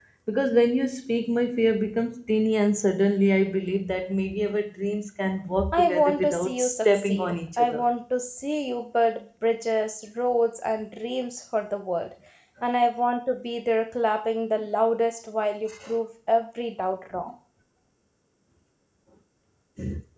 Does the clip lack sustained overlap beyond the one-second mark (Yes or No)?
No